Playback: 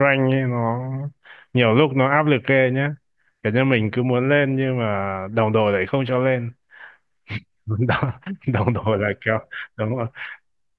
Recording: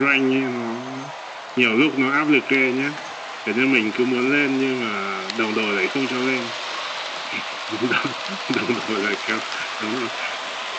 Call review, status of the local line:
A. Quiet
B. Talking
A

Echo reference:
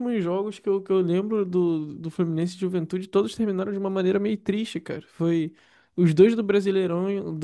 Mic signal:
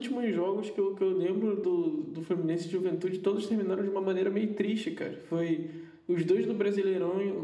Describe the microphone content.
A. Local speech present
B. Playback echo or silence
B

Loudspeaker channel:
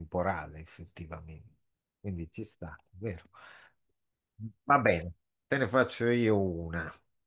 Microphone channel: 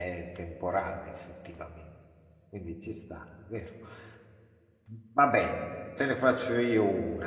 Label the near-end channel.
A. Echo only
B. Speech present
A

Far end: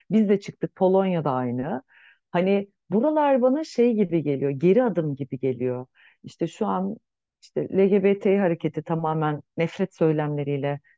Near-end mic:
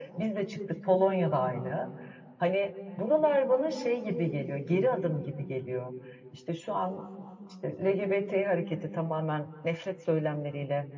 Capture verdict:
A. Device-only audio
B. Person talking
A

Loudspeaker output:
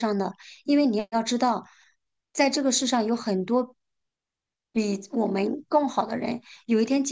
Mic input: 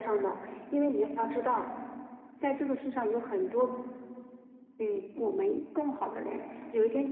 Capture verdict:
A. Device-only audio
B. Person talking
A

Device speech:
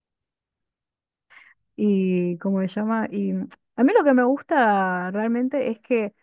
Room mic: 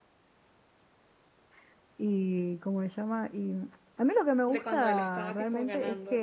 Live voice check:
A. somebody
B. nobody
A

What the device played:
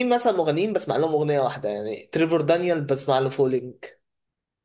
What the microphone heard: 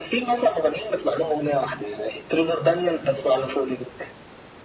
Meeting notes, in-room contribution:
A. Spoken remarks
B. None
B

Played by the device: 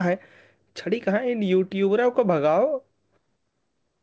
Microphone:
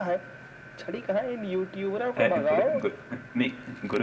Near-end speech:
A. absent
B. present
B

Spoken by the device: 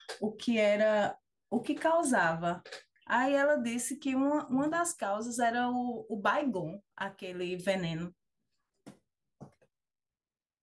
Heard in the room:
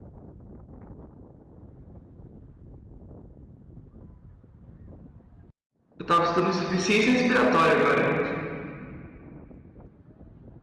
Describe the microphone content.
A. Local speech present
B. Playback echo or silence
A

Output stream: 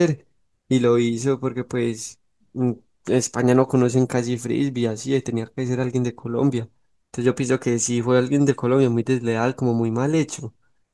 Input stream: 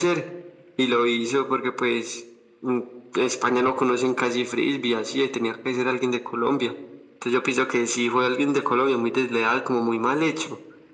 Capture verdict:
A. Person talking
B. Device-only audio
B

